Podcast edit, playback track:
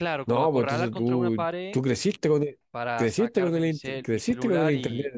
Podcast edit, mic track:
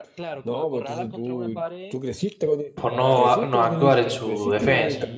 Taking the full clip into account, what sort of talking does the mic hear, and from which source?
both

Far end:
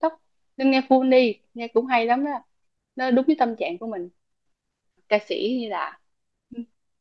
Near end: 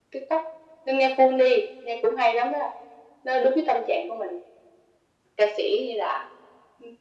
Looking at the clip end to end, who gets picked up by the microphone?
echo only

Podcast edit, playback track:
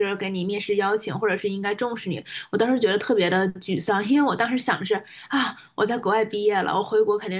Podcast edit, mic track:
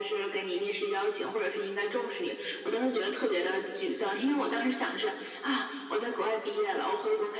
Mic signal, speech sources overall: echo only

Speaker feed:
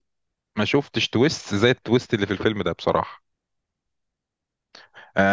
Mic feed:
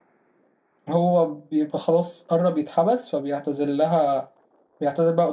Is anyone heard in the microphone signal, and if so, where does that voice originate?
user only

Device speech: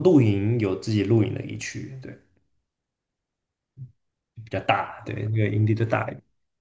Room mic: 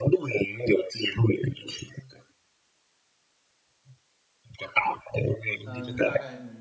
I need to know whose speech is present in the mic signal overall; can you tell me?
both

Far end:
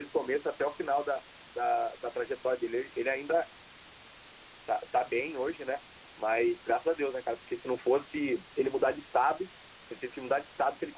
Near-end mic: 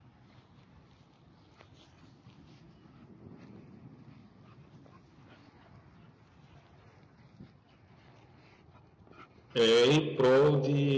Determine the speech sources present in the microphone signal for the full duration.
user only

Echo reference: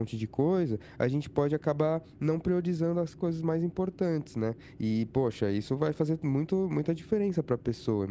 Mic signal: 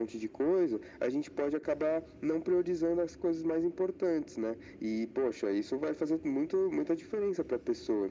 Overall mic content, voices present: echo only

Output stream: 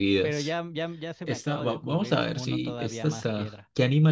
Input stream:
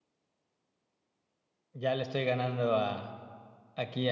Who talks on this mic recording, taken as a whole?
user only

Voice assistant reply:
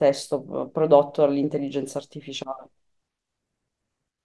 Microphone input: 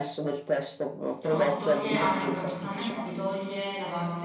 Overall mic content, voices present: both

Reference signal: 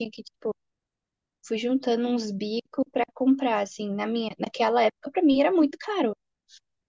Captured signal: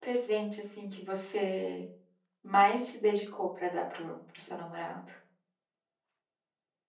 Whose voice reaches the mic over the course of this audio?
user only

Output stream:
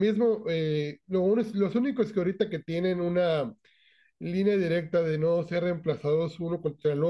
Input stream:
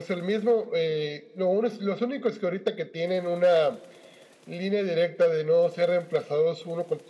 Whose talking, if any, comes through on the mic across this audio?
echo only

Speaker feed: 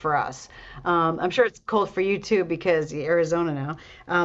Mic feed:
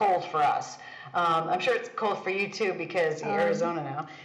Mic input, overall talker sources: both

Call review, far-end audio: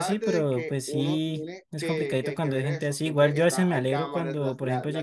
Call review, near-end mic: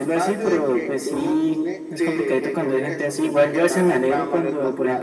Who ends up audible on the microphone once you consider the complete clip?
echo only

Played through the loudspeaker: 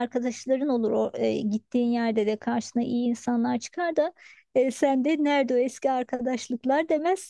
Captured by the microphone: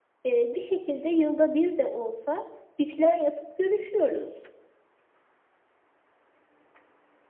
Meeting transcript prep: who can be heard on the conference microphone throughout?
user only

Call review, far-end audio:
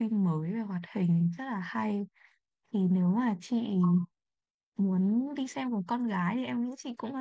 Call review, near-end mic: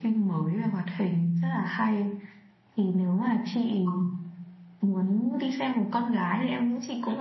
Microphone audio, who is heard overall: echo only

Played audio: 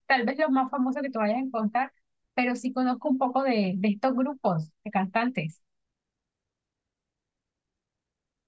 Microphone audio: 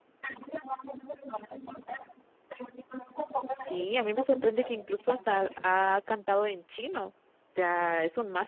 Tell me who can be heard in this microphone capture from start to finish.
both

